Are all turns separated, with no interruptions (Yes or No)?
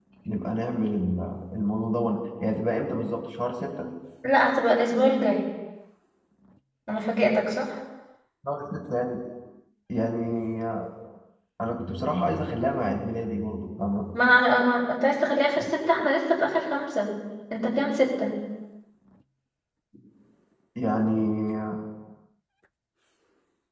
Yes